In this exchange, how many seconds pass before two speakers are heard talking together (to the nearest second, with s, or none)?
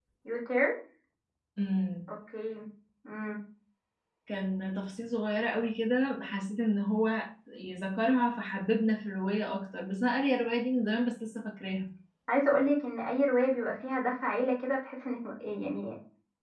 none